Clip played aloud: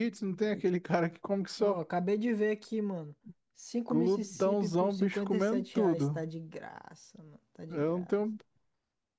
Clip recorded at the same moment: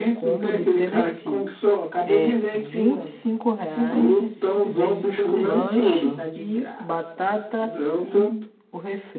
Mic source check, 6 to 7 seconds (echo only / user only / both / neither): both